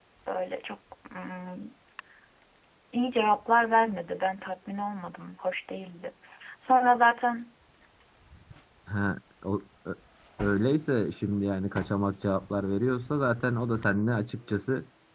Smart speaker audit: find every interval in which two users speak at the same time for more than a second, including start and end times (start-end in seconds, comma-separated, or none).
none